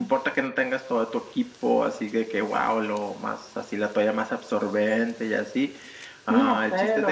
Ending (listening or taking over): listening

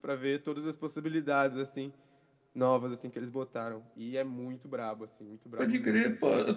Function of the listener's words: taking over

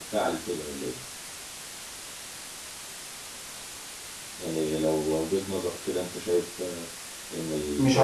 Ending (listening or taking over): taking over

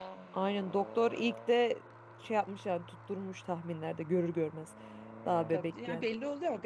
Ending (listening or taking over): taking over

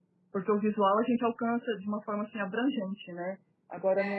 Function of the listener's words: listening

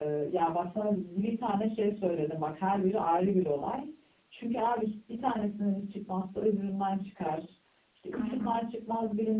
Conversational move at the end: listening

